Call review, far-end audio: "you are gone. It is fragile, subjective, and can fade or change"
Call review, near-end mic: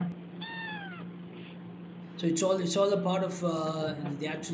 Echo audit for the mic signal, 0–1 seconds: neither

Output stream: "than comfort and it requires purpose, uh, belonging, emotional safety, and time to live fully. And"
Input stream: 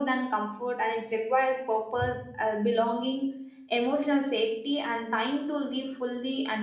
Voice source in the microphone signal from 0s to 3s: echo only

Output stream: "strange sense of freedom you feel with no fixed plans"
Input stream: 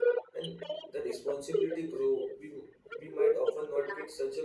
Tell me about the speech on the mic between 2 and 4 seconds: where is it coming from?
both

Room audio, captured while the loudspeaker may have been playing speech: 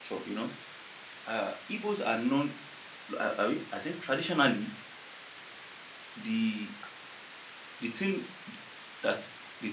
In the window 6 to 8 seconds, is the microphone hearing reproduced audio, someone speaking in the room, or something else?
user only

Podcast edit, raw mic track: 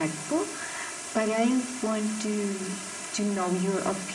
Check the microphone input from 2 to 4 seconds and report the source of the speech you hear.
echo only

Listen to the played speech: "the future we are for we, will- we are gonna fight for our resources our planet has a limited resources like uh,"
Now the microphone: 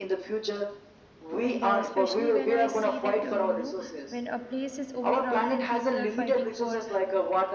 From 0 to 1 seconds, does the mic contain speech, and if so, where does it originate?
echo only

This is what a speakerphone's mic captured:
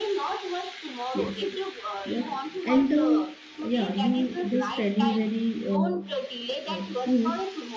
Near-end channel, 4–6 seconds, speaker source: both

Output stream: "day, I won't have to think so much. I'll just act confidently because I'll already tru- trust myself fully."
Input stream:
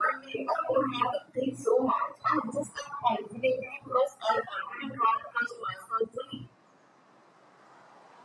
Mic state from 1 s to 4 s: echo only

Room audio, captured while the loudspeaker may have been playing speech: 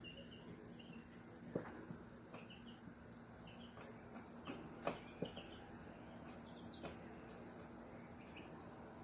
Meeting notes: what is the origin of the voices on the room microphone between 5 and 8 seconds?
neither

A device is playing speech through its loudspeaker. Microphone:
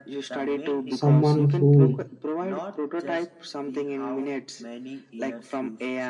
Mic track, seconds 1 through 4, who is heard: both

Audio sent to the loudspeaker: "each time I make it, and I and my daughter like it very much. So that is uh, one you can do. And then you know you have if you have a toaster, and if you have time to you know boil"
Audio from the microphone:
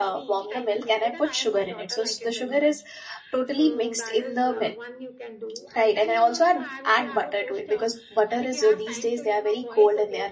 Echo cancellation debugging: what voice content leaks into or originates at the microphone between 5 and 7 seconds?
both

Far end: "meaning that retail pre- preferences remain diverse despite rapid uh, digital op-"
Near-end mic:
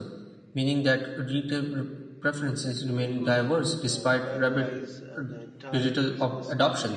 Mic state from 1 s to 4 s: both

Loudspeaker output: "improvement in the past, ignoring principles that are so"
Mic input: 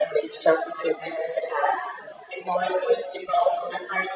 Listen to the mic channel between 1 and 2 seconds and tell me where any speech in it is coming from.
echo only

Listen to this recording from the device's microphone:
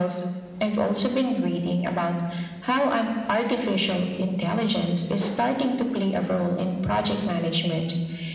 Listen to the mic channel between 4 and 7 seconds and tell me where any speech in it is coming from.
echo only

